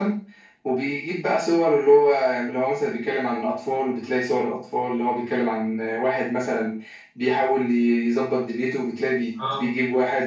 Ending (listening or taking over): listening